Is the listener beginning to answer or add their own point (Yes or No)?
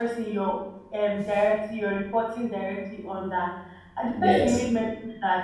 No